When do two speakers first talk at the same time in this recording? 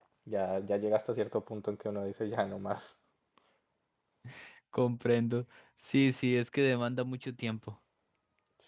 none

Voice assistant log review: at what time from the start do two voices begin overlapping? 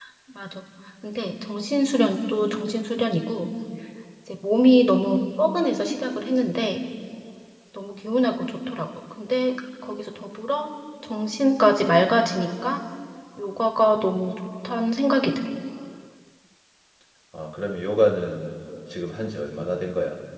none

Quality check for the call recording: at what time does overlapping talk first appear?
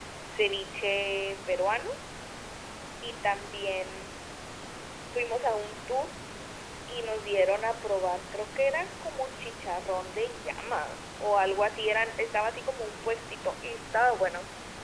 none

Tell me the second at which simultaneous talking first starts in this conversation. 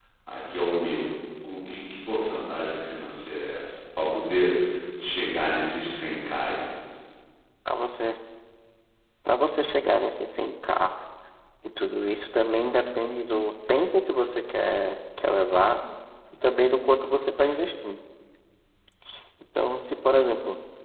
none

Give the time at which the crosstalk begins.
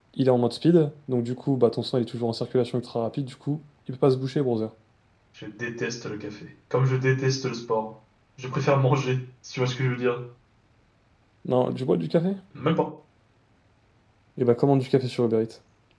none

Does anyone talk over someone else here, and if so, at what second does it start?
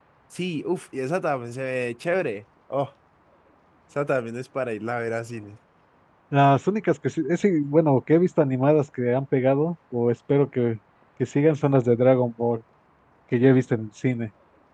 none

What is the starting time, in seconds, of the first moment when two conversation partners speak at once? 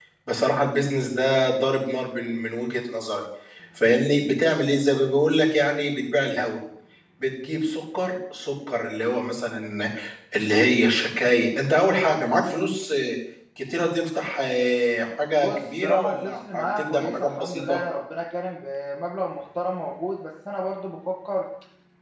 15.4 s

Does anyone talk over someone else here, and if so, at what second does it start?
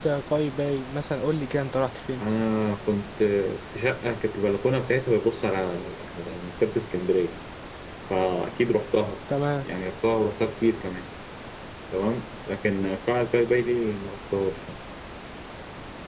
none

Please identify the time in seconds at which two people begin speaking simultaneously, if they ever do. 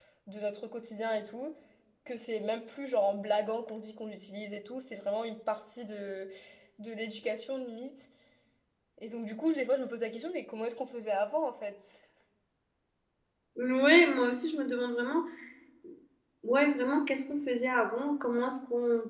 none

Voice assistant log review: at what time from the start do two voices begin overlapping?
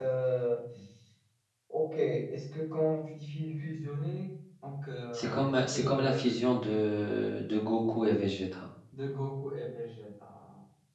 5.1 s

